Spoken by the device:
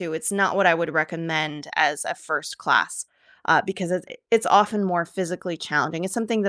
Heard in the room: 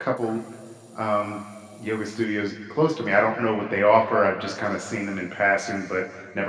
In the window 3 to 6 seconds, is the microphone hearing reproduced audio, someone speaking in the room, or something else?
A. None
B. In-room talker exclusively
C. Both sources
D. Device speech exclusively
B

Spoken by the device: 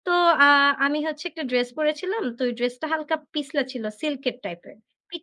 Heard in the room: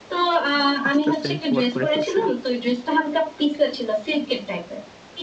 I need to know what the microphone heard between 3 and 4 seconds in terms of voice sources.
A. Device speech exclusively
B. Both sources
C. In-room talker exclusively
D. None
A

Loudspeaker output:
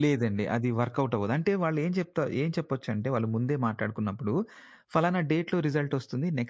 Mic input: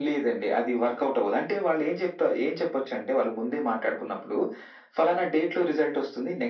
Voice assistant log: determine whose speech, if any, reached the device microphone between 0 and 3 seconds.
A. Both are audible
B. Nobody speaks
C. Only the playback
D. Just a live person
C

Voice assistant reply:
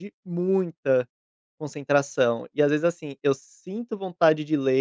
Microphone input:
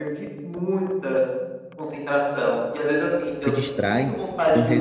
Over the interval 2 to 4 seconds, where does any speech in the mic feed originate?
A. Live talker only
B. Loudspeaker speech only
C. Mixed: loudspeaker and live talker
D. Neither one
C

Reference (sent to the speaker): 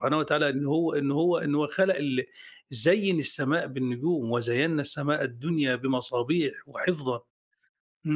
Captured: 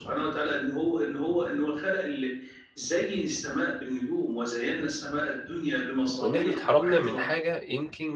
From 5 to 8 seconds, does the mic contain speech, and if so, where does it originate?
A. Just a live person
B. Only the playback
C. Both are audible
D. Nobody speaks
C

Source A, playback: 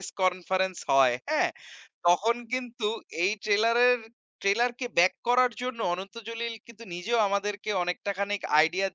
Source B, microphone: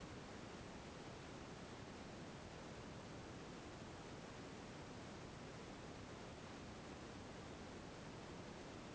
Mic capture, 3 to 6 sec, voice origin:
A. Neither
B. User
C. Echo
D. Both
A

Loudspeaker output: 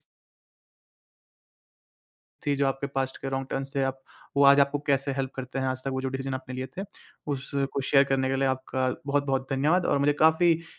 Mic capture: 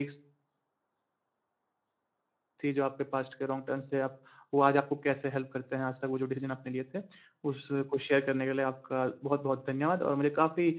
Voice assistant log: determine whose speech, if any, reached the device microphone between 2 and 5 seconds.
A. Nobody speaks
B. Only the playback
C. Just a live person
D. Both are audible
B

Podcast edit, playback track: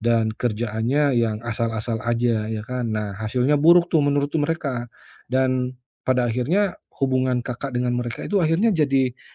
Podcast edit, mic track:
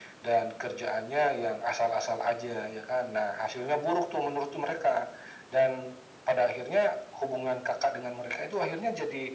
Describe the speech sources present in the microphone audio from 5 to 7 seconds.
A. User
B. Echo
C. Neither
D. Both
B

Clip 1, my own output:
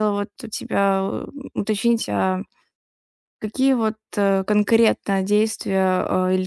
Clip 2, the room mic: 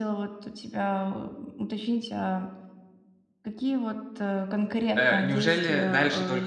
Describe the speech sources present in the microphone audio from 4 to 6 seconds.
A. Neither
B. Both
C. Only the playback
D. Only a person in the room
B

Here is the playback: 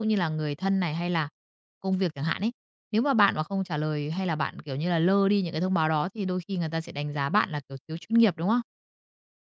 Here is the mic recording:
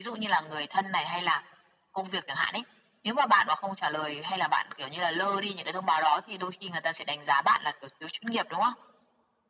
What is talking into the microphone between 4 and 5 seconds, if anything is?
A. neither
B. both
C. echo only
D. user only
C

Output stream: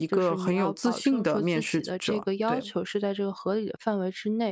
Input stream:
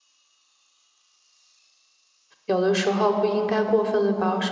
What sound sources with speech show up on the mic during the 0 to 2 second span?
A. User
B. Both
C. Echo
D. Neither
D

